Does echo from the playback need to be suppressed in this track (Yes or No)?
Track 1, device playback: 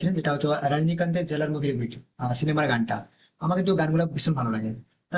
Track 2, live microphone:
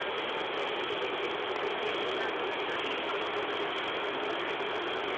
No